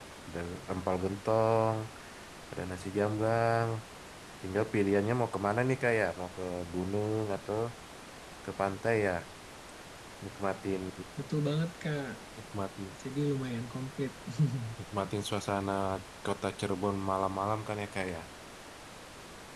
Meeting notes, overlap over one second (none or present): none